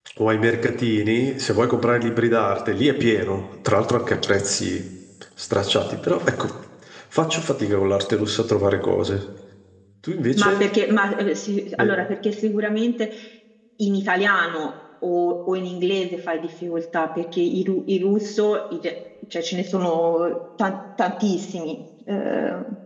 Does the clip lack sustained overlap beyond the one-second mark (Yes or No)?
Yes